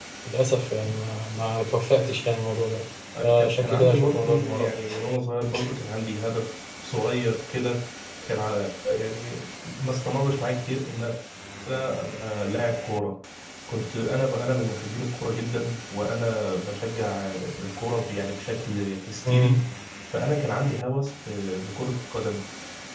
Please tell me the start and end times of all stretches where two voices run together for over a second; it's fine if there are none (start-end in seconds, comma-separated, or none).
3.2-4.8